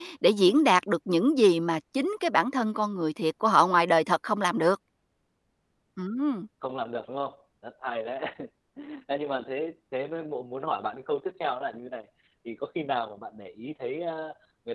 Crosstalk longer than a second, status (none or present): none